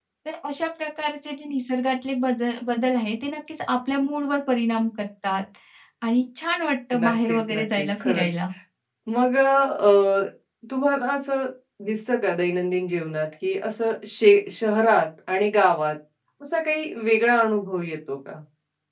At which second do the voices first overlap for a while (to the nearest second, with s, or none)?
7 s